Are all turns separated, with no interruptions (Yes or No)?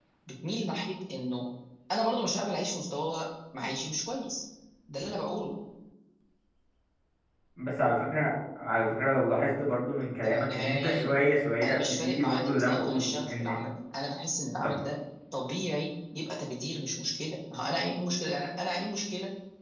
No